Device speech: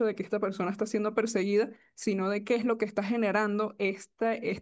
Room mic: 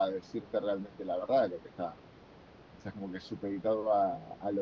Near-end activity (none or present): present